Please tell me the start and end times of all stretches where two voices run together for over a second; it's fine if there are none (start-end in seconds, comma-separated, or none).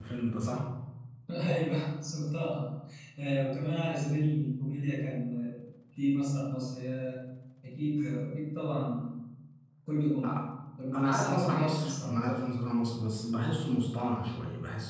10.9-12.3